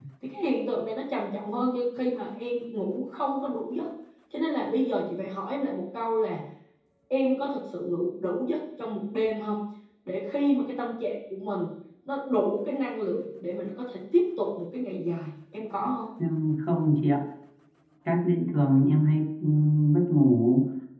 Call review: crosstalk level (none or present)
none